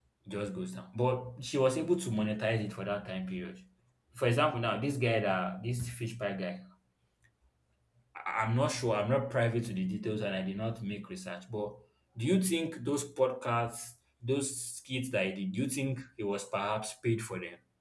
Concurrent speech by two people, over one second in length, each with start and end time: none

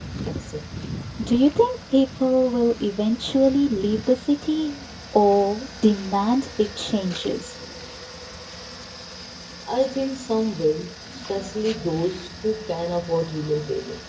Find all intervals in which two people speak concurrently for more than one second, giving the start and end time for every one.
none

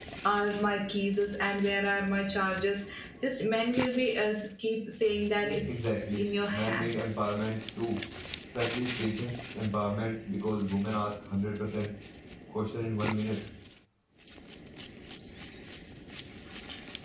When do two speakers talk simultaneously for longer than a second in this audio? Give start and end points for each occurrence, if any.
5.4-6.9

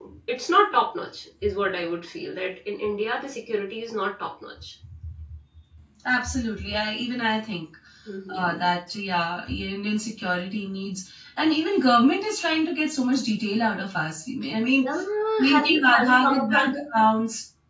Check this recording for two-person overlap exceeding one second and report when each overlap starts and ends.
15.5-16.7

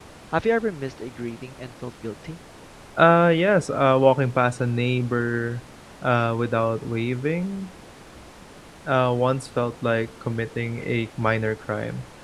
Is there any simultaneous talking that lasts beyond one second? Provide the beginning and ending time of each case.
none

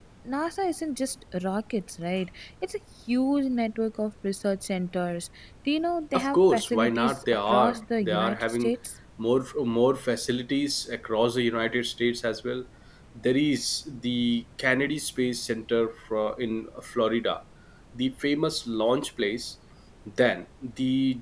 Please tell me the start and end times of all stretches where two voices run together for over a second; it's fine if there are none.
6.2-8.7

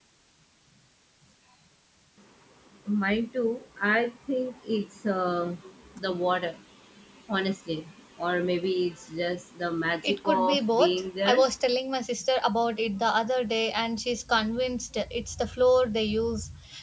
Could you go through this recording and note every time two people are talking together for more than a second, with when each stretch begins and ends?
10.0-11.4

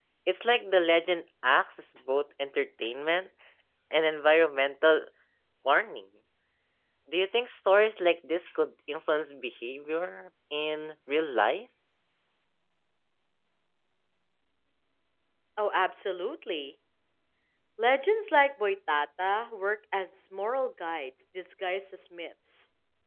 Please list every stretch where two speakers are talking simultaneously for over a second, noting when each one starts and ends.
none

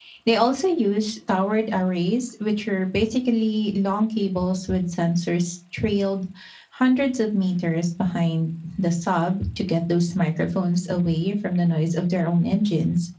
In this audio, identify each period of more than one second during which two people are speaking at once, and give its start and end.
none

